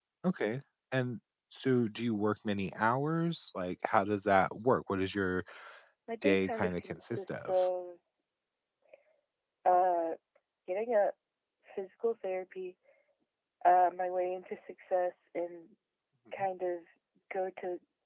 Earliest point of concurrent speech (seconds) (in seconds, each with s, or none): 6.2 s